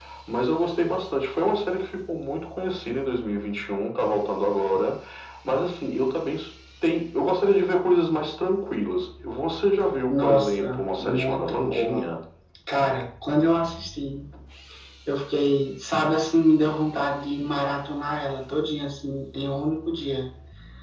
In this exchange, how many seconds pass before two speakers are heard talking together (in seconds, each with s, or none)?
10.1 s